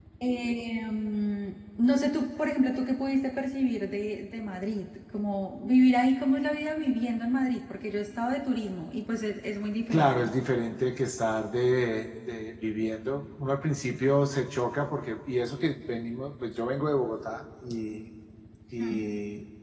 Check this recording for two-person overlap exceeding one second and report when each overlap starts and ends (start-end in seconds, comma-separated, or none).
none